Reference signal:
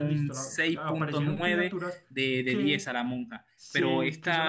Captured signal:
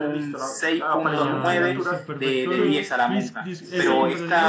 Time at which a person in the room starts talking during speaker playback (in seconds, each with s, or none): 1.0 s